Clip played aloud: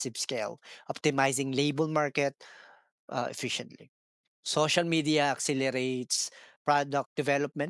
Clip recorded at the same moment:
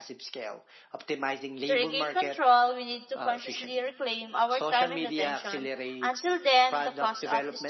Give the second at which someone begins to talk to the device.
1.7 s

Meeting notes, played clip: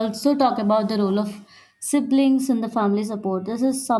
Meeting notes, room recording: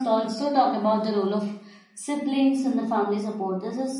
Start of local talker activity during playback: none

